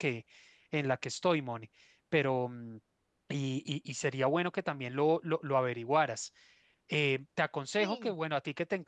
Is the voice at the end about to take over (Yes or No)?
No